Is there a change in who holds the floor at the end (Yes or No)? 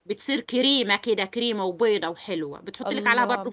Yes